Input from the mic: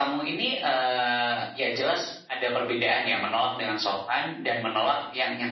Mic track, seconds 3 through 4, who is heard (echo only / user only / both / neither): echo only